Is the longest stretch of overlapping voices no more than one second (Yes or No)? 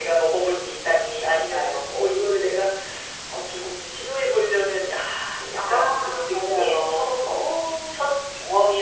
No